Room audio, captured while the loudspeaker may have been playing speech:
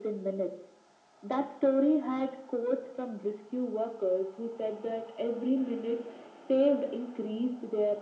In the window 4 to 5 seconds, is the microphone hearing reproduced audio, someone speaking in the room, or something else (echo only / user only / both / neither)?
echo only